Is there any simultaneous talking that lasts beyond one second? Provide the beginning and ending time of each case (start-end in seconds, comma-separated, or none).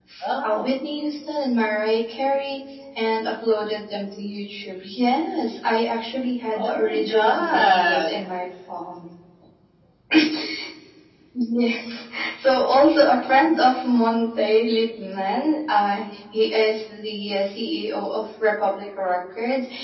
6.6-8.3